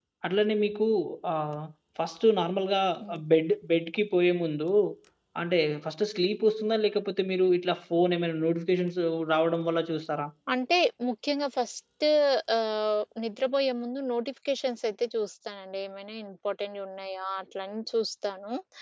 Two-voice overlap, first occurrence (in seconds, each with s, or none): none